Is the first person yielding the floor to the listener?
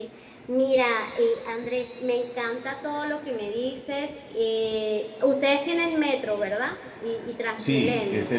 Yes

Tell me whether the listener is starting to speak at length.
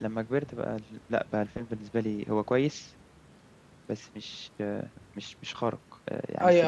Yes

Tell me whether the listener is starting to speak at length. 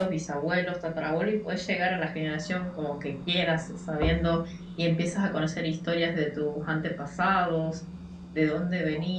No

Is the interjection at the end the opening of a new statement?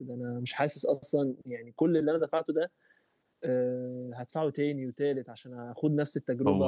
Yes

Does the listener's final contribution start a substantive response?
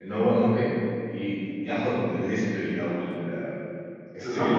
Yes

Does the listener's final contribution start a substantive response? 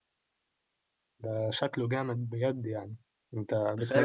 Yes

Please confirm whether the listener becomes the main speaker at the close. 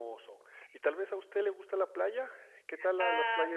Yes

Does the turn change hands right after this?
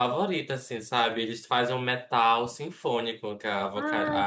No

